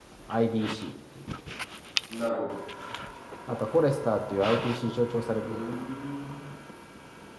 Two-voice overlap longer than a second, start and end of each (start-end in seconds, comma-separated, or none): none